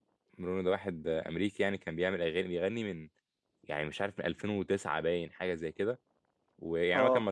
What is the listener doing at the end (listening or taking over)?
listening